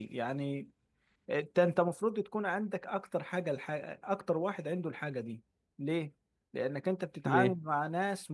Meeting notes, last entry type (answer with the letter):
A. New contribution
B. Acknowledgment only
B